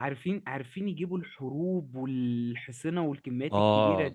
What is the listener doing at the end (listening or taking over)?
taking over